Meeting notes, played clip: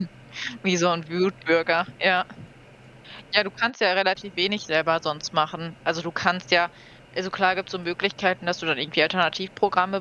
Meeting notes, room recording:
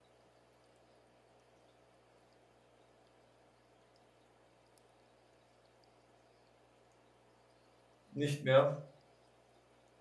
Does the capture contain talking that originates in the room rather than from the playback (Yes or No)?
Yes